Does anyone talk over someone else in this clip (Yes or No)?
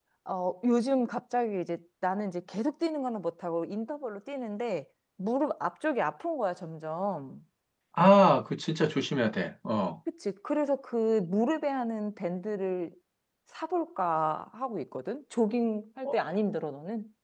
No